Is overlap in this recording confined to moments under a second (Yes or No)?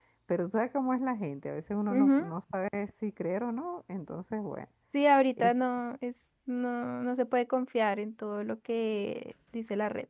Yes